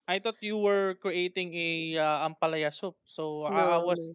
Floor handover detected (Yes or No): No